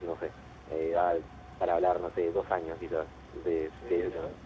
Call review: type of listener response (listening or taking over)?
taking over